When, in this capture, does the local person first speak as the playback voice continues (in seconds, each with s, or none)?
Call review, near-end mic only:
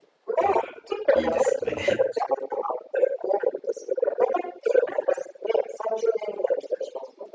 0.4 s